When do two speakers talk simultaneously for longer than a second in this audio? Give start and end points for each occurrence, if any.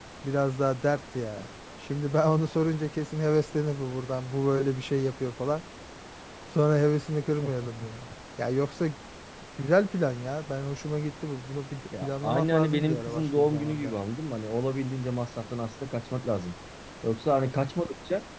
12.0-14.0

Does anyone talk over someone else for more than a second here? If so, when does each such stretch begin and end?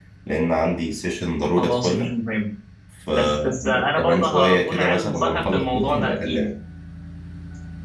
3.1-6.5

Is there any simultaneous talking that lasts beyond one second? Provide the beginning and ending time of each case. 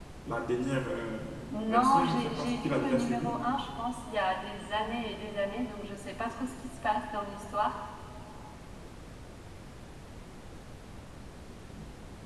1.7-3.4

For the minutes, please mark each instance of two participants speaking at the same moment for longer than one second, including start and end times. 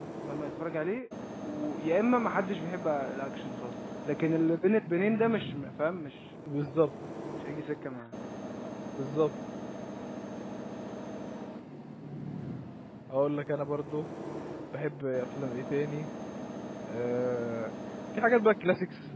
none

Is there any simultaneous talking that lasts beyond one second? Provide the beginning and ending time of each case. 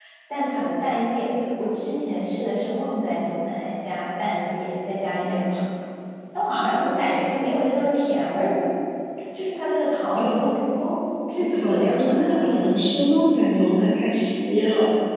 11.4-12.8

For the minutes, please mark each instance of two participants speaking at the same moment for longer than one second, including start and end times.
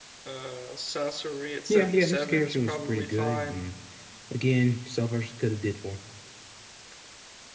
1.7-3.6

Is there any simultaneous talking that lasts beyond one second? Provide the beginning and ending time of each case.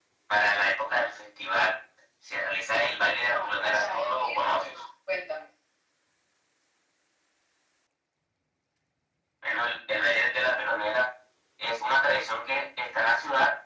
3.2-4.8

